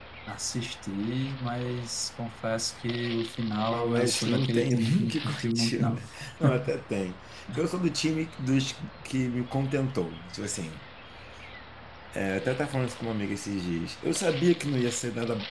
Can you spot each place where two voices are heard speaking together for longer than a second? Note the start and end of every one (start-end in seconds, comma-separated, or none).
3.7-6.0